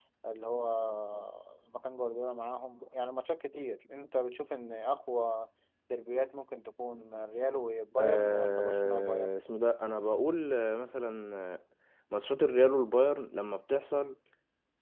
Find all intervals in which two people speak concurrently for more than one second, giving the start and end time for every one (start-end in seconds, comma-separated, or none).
8.0-9.3